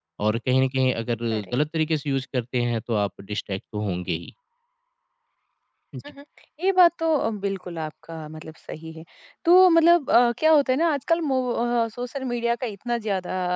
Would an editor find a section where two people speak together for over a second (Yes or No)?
No